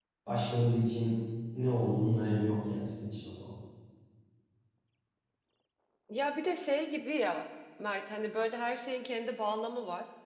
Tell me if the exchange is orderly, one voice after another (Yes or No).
Yes